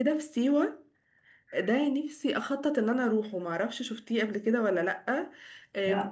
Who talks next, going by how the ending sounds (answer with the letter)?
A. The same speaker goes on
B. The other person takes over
A